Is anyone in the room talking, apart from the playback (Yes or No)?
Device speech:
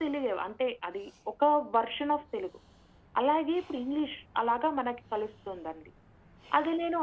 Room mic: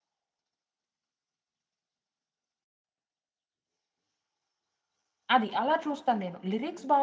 Yes